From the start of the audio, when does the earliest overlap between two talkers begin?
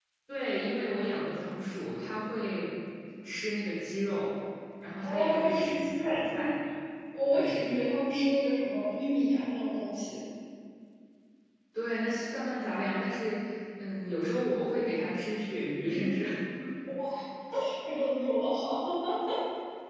5.0 s

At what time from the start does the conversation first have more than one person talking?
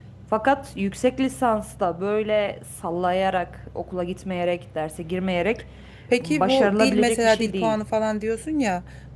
6.2 s

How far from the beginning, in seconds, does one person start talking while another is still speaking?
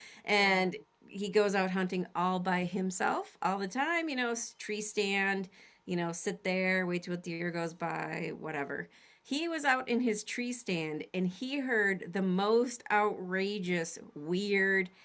none

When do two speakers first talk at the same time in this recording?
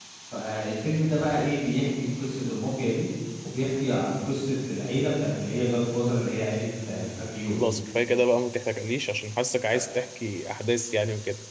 none

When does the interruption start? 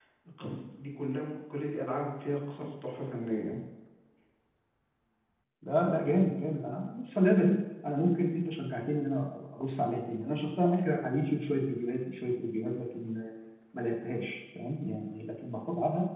none

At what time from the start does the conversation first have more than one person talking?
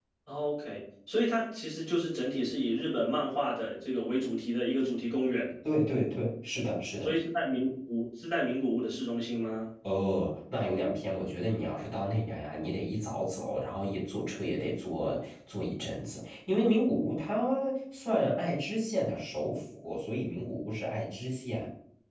none

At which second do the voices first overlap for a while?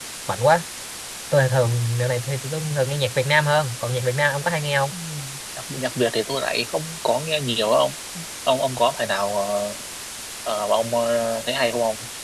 none

